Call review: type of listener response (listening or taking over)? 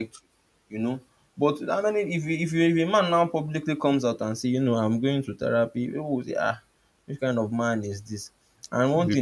listening